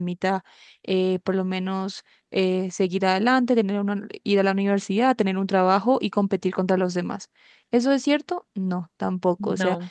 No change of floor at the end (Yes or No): Yes